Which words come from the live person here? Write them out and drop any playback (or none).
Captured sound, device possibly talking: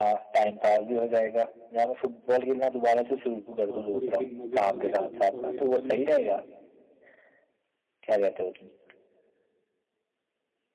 और पूरे दिन मजे मजे कर लूँ पर वैसा तो नहीं जमता है ना